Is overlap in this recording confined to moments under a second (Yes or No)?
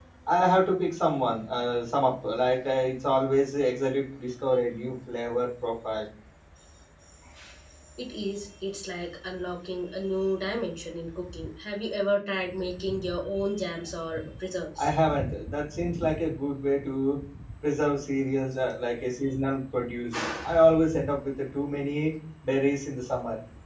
Yes